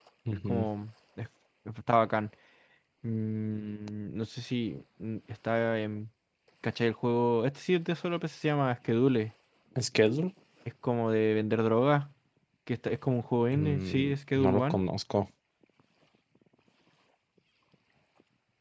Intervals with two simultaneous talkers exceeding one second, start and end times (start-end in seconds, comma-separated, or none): 13.5-14.8